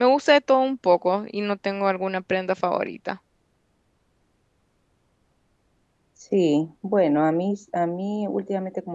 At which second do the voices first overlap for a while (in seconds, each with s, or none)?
none